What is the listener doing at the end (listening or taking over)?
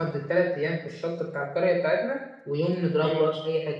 listening